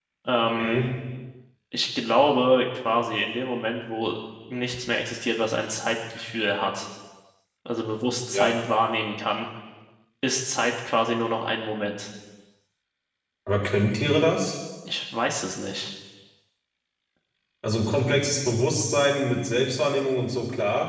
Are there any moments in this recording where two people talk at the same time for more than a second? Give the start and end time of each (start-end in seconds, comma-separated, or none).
none